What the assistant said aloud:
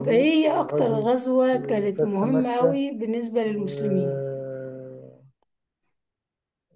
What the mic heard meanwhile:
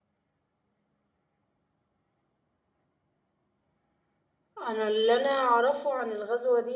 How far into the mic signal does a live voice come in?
4.6 s

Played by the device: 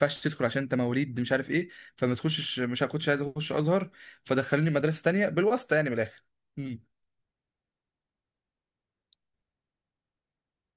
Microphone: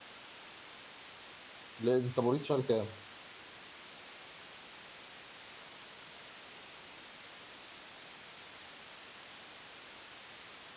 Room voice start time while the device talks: 1.8 s

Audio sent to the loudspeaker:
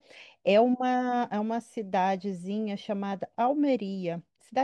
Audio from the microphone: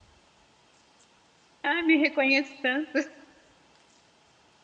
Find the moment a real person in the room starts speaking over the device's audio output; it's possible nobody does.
1.6 s

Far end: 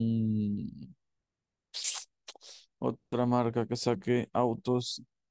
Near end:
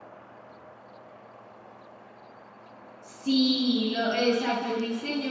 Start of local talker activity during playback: 3.0 s

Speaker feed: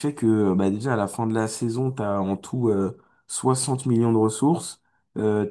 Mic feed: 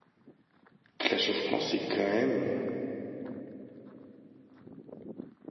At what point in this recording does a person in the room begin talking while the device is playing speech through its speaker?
1.0 s

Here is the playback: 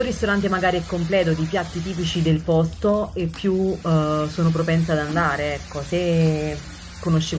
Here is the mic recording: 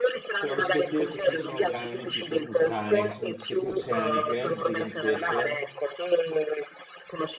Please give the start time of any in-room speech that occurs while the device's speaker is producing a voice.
0.4 s

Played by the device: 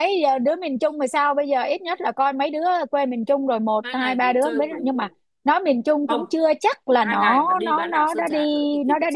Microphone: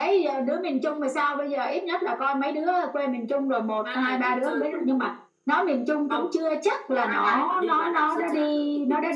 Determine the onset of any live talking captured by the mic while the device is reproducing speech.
none

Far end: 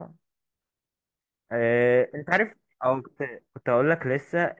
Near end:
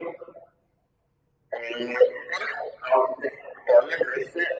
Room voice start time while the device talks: none

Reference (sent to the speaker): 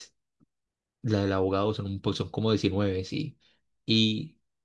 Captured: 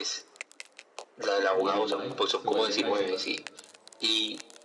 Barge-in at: 1.5 s

